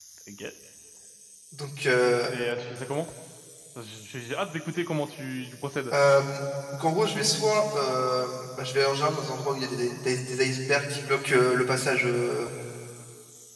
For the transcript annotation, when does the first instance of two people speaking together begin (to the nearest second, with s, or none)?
none